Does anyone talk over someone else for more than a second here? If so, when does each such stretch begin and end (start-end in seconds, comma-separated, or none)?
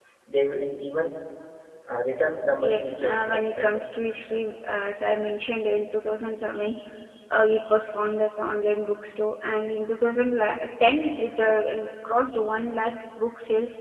2.6-3.8